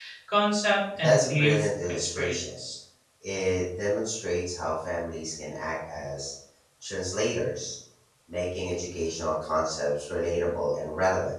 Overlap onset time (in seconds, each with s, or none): 1.0 s